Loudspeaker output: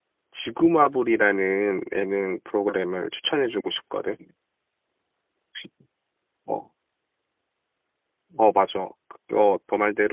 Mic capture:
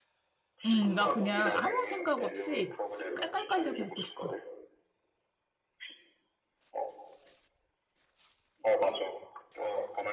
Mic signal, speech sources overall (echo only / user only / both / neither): both